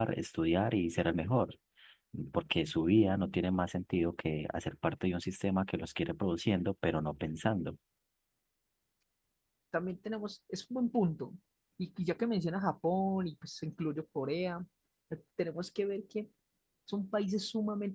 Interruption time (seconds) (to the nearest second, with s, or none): none